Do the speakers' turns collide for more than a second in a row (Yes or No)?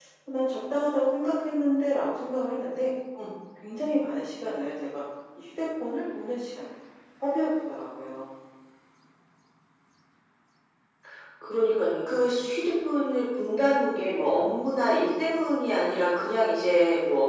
No